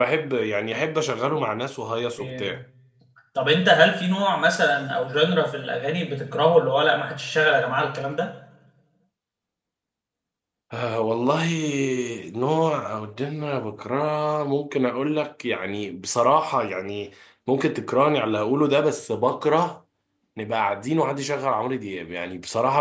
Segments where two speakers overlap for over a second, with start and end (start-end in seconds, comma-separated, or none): none